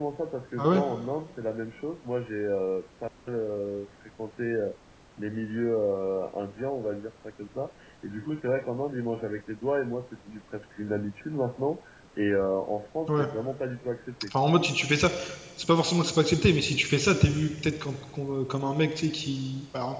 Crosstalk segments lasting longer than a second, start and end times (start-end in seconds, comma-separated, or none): none